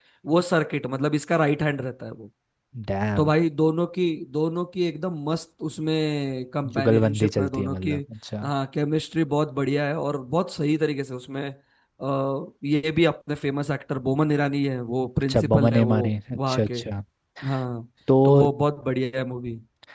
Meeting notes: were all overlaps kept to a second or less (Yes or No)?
No